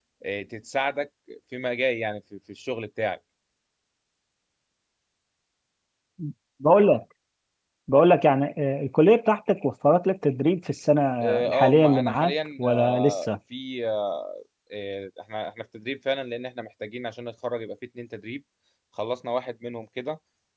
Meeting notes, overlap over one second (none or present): present